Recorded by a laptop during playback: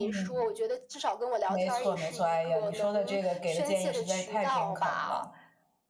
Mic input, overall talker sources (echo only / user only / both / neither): both